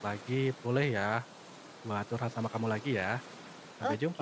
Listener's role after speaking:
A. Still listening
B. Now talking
B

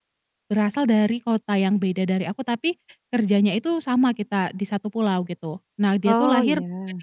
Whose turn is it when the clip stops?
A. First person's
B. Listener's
A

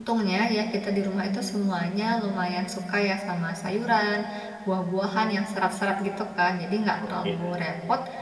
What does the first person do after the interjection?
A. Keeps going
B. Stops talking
A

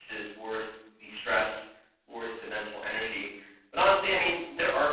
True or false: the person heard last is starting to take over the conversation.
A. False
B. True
A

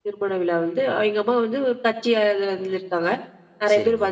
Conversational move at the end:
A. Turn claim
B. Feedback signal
B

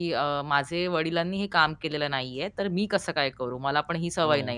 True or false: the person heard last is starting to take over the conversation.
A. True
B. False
B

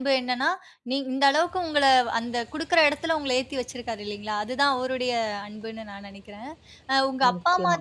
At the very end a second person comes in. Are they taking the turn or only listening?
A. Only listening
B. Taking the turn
A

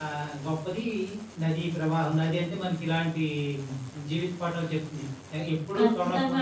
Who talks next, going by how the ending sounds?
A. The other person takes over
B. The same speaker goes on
A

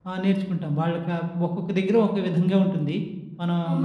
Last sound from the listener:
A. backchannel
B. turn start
B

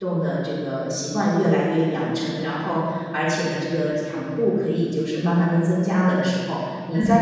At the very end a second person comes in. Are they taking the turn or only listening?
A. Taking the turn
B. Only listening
A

